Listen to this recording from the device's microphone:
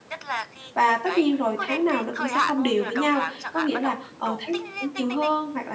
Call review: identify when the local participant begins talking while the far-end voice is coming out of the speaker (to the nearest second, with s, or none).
1 s